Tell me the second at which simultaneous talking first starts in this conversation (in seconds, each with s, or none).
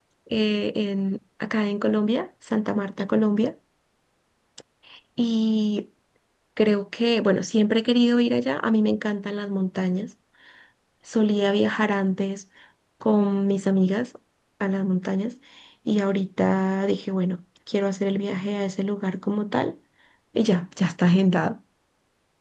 none